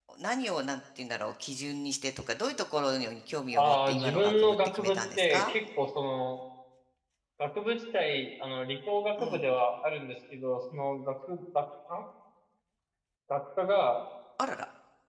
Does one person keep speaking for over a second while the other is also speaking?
Yes, from 3.5 s

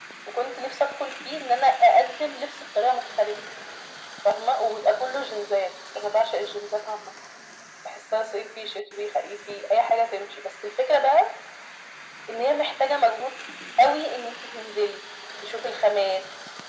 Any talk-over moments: No

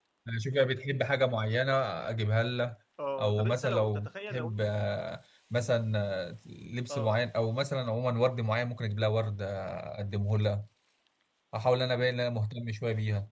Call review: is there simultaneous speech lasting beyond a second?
Yes, from 3.2 s

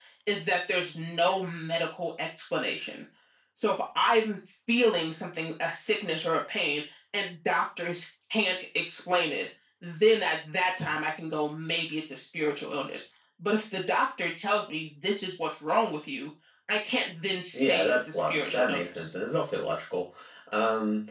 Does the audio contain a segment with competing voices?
Yes, from 17.5 s

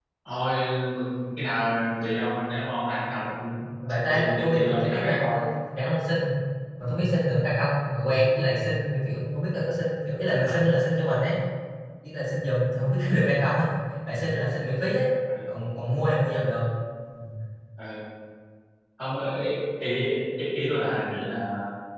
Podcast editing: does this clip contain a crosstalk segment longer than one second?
Yes, from 4.1 s

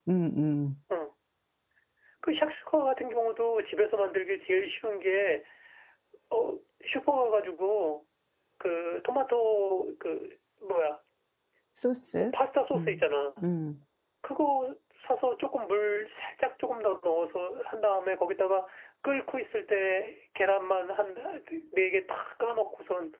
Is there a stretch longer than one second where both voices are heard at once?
No

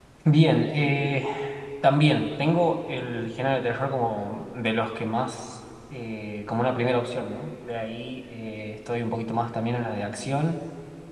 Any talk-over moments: No

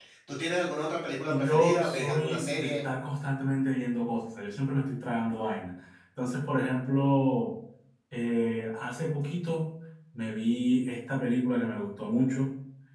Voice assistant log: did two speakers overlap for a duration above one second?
Yes, from 1.3 s

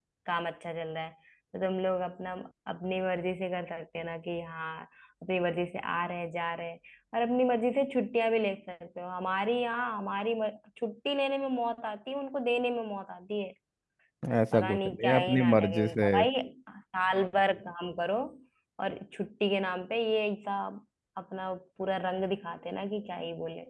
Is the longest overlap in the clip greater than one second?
Yes, from 14.5 s

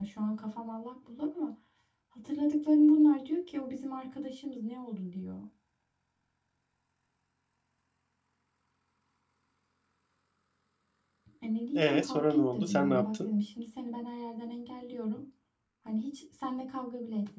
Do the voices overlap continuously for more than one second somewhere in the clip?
Yes, from 11.8 s

